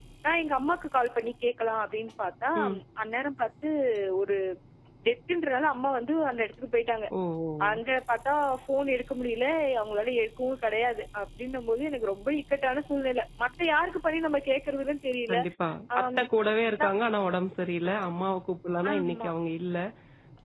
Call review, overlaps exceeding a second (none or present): none